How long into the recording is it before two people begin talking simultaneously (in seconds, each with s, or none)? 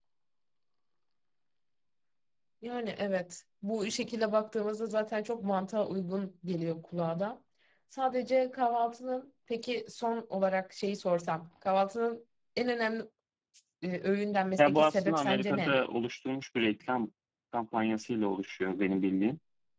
14.6 s